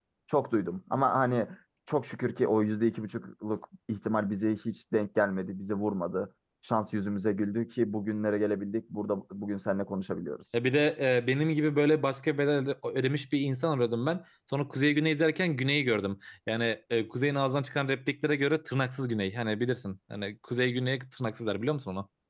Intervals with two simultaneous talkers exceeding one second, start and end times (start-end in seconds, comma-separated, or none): none